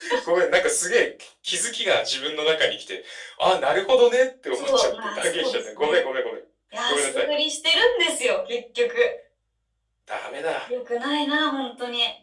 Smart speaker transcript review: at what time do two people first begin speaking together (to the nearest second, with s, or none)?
5 s